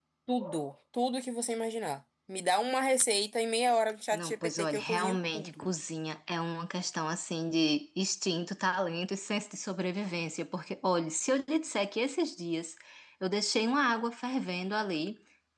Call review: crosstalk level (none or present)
present